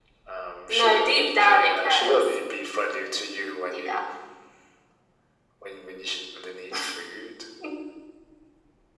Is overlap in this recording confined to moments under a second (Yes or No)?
No